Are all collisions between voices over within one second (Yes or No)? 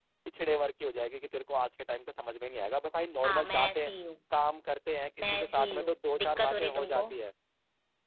No